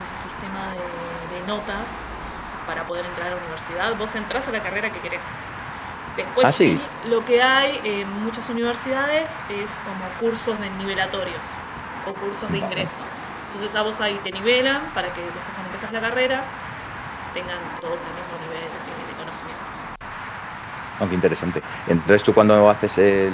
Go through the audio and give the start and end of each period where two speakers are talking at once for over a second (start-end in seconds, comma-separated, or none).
none